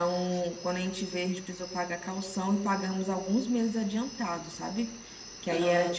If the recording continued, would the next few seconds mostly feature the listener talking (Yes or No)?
No